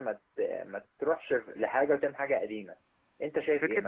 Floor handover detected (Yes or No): Yes